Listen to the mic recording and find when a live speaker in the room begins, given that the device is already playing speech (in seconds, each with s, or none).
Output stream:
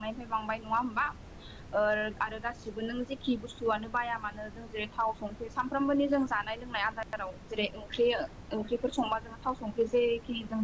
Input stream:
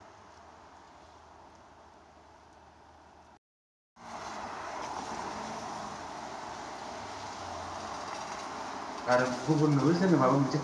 9.1 s